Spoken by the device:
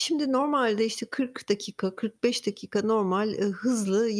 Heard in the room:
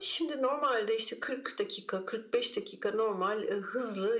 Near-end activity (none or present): none